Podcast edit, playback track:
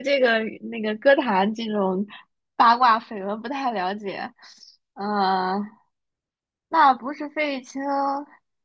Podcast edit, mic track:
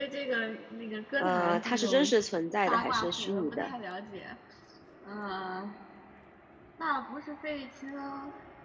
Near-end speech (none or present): present